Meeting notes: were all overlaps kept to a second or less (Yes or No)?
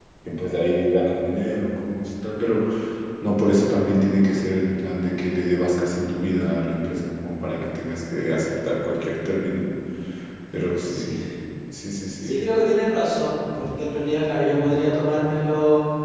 Yes